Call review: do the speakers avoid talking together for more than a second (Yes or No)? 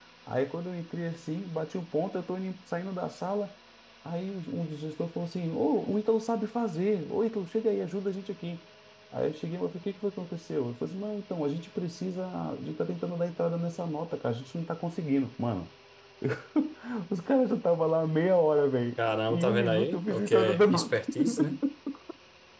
No